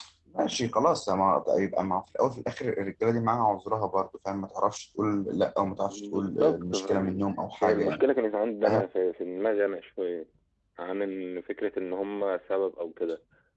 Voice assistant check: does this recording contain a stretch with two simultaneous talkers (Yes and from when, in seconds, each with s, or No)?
Yes, from 5.9 s